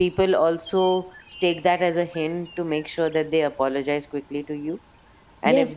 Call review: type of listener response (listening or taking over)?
taking over